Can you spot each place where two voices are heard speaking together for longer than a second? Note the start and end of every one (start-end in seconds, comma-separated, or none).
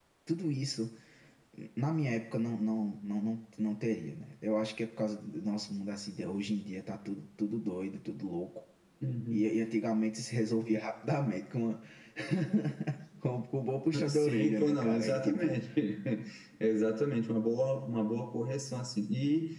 14.1-15.6